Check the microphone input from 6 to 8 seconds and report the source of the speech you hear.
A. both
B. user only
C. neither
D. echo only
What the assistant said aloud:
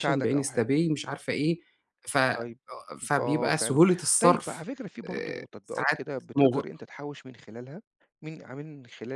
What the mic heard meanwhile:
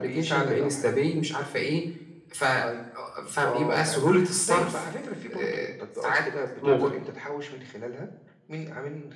D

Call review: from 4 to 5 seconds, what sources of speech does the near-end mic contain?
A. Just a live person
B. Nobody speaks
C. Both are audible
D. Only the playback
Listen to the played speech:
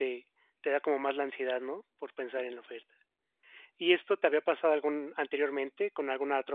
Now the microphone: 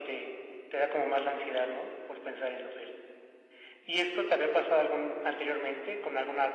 D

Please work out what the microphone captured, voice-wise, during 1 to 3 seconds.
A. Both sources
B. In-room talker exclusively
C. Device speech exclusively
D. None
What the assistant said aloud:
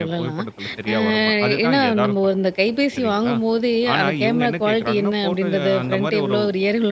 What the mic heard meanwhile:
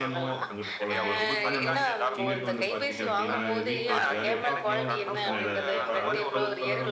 A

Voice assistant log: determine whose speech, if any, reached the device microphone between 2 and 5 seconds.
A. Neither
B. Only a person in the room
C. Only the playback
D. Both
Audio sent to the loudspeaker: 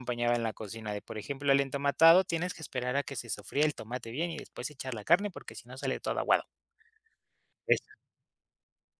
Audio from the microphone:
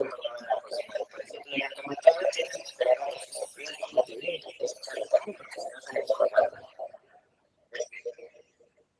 C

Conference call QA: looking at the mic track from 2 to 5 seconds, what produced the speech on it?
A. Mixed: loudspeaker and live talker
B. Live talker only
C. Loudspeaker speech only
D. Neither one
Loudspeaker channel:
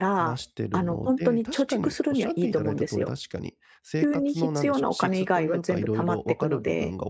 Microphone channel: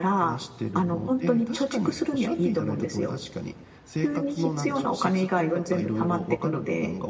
C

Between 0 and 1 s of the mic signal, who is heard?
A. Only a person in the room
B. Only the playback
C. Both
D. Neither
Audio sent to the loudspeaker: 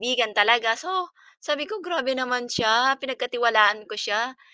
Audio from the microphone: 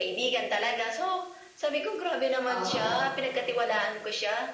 B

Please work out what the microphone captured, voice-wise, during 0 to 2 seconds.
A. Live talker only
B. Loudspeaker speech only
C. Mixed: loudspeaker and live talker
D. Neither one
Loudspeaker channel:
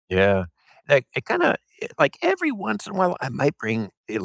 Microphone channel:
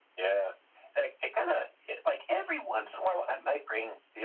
B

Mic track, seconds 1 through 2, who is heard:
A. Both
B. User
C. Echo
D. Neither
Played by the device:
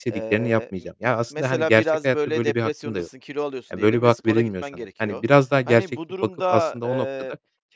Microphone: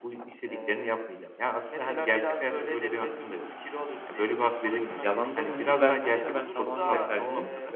C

